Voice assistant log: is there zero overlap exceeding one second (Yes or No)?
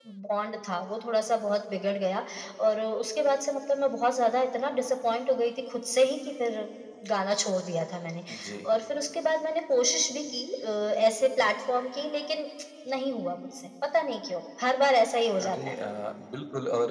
Yes